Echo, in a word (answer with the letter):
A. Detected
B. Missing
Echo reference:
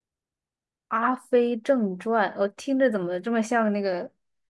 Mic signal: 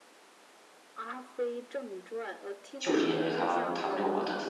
A